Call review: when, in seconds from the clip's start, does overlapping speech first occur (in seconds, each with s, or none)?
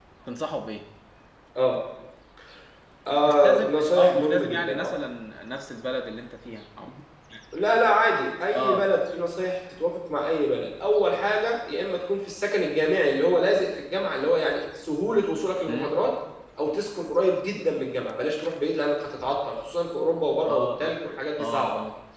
3.3 s